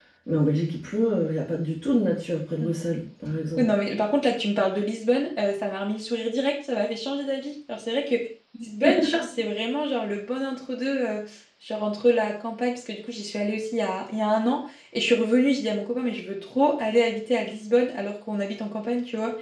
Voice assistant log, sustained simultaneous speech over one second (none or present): none